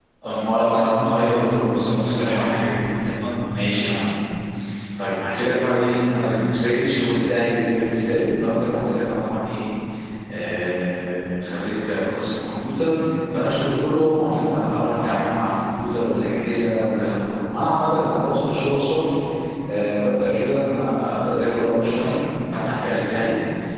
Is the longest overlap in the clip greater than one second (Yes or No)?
Yes